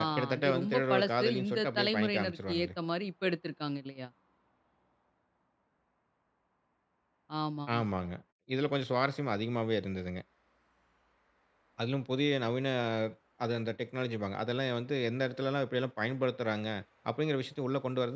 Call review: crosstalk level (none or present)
present